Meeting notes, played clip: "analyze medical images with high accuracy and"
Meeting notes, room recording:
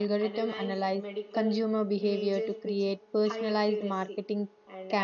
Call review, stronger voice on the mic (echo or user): user